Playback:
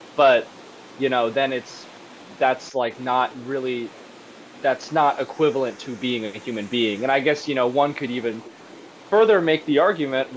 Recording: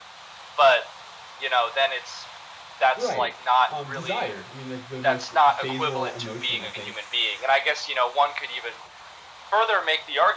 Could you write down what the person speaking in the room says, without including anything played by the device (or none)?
right, um, desire. I mean, like the most basal emotion, I think.